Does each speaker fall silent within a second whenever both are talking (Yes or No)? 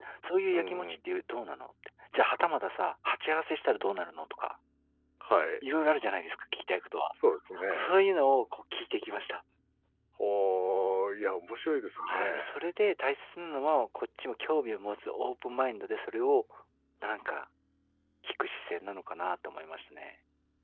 Yes